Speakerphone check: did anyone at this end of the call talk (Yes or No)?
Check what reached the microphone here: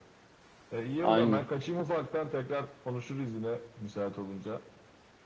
Yes